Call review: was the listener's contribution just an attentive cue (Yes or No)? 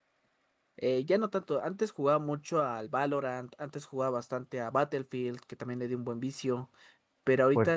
Yes